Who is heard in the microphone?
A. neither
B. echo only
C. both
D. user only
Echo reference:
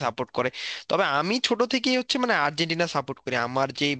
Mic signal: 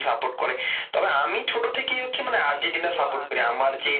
C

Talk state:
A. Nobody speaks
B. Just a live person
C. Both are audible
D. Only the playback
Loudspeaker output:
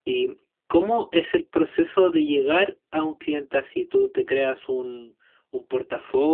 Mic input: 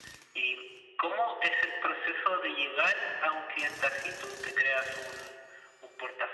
D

